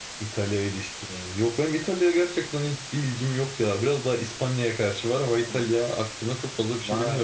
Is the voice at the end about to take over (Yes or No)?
Yes